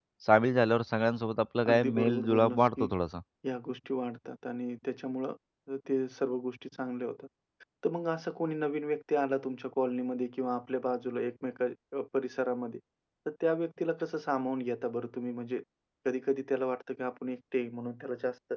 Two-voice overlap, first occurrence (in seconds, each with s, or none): 1.6 s